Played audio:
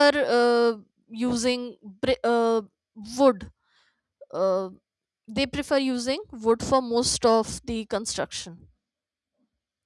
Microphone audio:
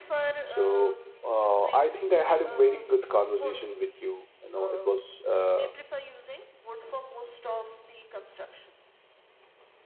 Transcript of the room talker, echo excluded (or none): So uh, I think I had a very good conversation with you. You know, it was uh,